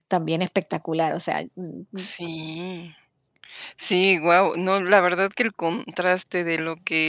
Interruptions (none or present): none